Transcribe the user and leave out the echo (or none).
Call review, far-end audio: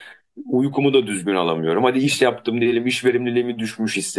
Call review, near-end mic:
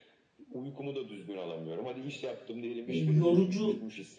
e, yorucu